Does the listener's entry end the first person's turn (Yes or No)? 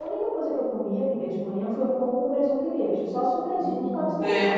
Yes